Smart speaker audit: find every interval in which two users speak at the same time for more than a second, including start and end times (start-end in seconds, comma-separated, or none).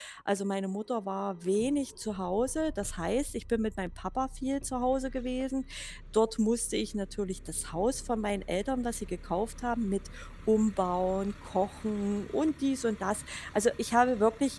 none